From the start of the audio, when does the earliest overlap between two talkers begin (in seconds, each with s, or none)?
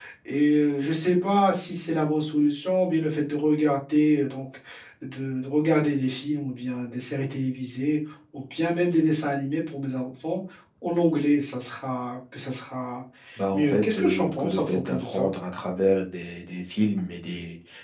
13.5 s